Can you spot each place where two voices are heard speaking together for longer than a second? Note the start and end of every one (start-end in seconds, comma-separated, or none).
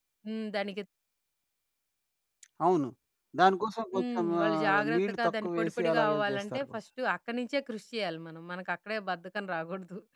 3.9-6.6